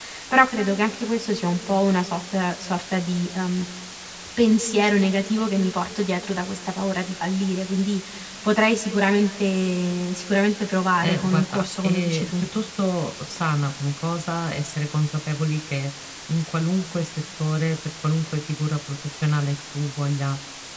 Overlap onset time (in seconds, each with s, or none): 11.0 s